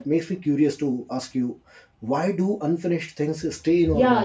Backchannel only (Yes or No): No